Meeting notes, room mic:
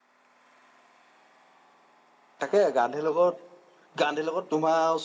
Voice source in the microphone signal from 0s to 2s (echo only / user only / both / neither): neither